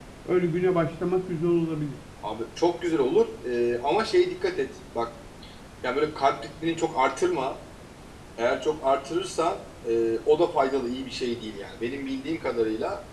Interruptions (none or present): none